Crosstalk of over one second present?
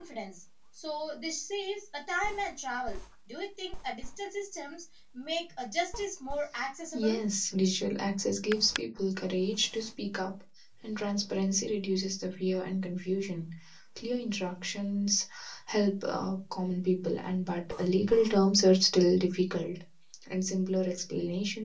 No

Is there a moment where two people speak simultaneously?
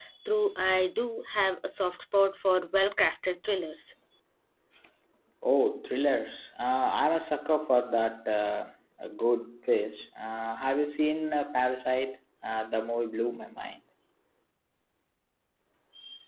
No

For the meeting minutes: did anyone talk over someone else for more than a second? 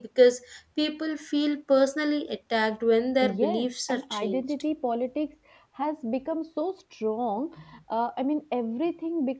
Yes, from 3.2 s

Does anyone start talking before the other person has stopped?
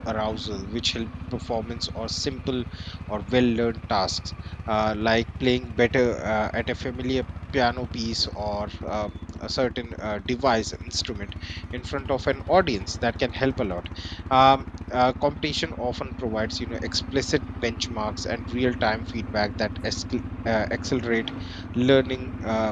No

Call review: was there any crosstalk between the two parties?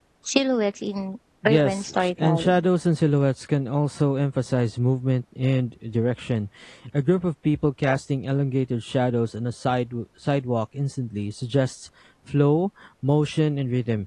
Yes, from 1.4 s

